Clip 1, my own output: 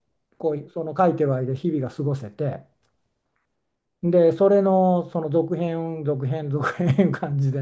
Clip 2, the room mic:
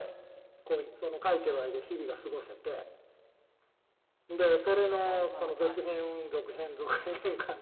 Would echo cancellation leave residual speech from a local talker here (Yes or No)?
Yes